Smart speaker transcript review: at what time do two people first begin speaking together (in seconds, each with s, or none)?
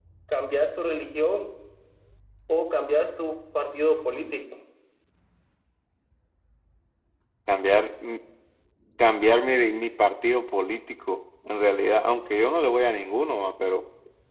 none